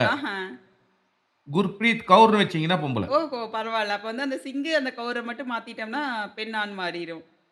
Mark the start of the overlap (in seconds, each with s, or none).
none